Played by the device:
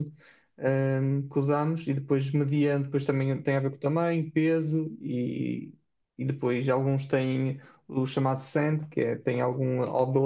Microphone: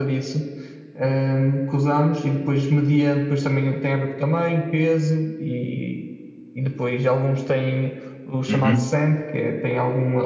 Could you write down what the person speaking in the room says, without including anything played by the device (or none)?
uhum,